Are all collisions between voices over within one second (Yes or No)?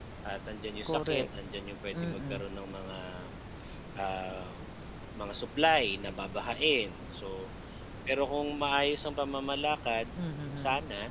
Yes